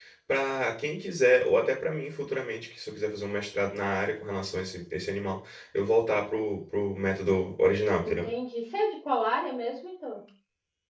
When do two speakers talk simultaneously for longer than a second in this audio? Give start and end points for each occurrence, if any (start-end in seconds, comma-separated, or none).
none